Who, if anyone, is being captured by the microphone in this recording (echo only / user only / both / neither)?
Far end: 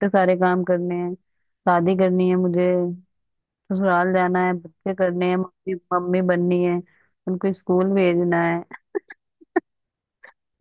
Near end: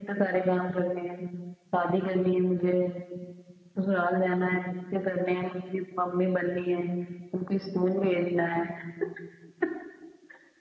echo only